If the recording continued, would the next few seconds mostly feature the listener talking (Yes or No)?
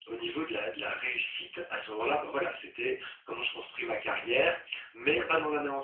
No